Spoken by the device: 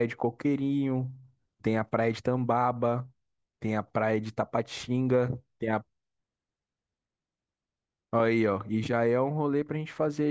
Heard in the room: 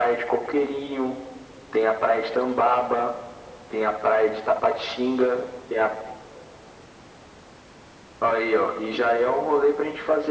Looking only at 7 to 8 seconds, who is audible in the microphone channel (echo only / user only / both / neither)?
neither